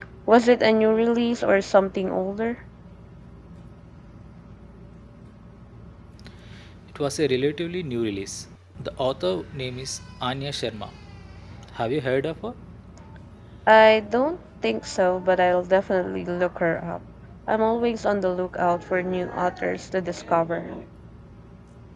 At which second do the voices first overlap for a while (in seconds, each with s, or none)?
none